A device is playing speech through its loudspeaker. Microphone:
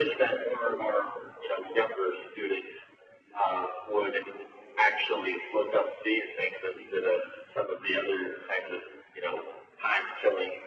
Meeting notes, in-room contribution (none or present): none